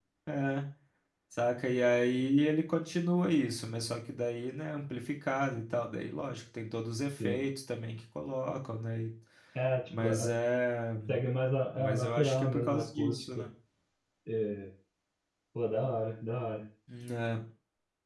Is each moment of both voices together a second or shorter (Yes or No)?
No